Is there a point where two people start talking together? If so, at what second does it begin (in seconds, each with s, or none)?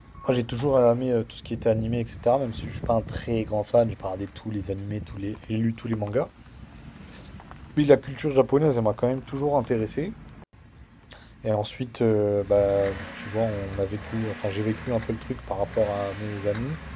none